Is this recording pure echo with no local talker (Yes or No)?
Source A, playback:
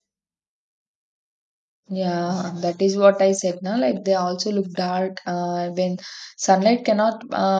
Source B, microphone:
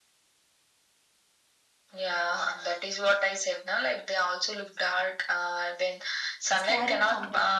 No